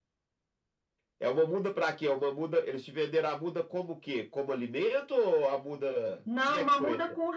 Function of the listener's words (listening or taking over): taking over